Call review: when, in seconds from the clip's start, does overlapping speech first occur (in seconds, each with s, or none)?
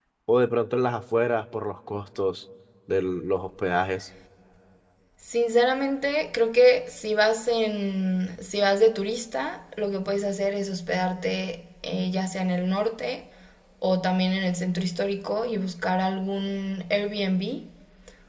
none